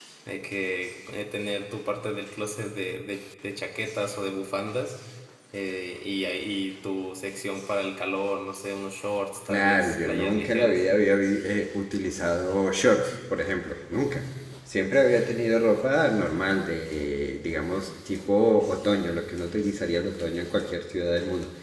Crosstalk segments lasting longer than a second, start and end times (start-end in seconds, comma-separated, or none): 9.5-10.8